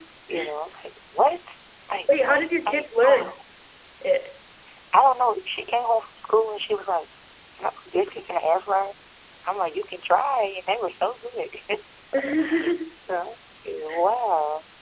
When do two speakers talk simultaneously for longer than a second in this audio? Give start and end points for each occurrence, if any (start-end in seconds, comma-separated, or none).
2.1-3.3